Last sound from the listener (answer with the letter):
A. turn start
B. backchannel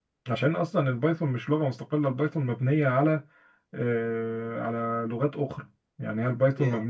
B